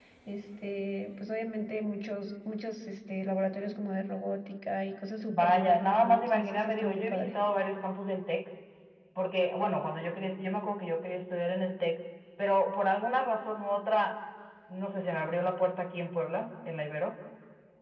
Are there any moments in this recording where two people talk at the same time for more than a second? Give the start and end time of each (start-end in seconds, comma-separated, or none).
5.3-7.3